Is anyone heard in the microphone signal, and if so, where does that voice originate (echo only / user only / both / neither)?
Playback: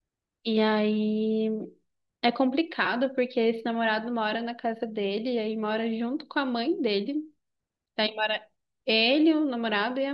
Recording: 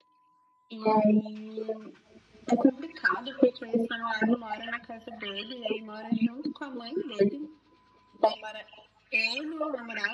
echo only